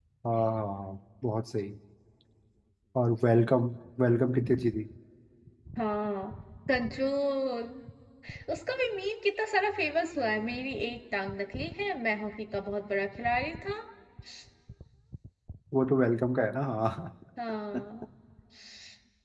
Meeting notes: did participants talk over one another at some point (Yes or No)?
No